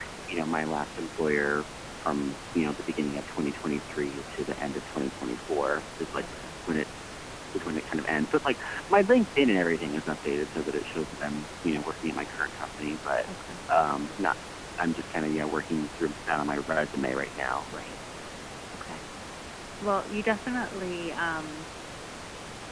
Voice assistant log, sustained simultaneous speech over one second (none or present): none